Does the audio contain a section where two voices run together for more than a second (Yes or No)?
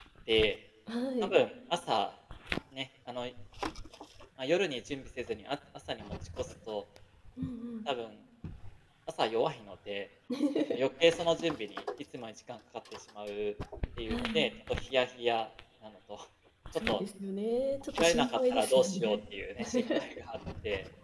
Yes